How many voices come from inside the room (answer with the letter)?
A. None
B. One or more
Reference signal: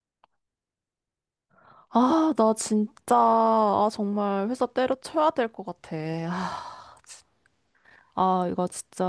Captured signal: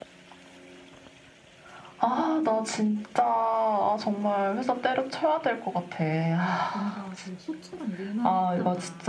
B